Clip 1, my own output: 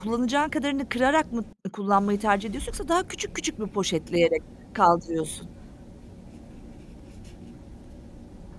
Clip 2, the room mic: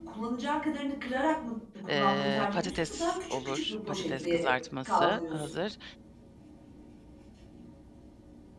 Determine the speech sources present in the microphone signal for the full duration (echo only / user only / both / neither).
both